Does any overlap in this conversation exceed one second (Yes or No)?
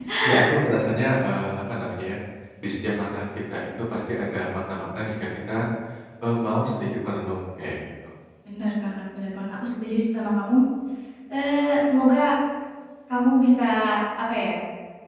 No